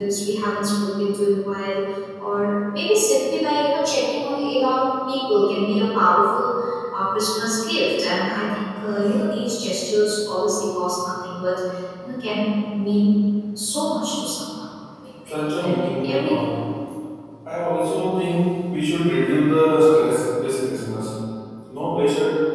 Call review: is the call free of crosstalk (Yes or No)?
No